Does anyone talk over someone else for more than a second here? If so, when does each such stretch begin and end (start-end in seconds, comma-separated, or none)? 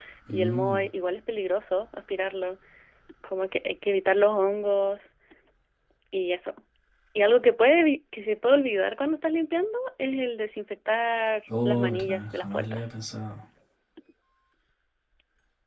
11.6-12.9